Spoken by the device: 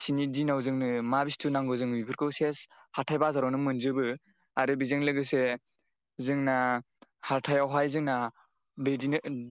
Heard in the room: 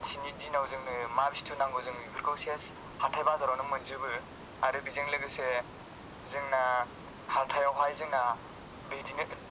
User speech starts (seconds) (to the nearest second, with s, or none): none